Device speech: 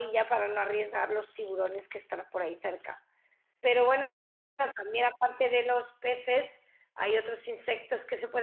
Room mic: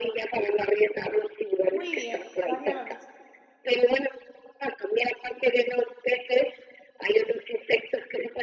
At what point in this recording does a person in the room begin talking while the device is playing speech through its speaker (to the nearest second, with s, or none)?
2 s